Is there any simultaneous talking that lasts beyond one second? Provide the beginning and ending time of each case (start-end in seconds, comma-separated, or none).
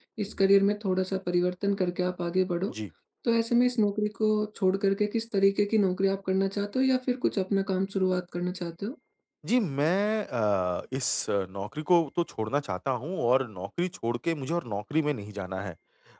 none